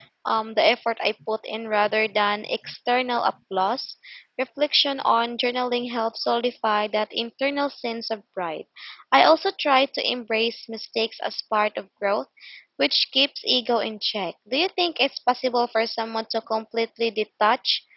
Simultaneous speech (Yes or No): No